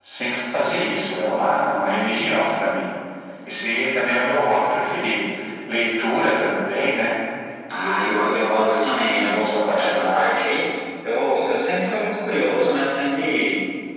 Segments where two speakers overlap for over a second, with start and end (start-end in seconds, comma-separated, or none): 7.8-10.3